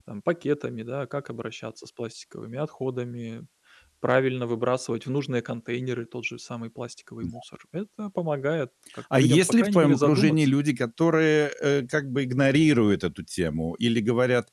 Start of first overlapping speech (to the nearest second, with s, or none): 9 s